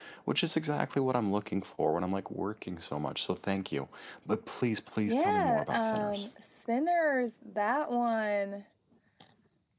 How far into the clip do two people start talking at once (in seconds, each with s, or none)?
5.1 s